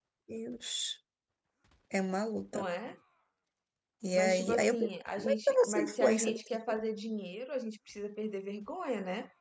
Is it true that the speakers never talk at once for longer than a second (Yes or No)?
No